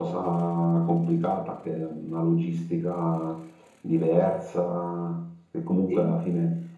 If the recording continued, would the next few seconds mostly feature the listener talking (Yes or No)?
No